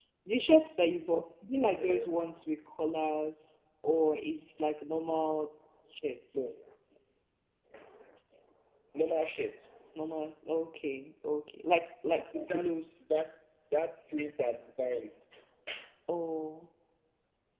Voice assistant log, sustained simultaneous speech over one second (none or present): none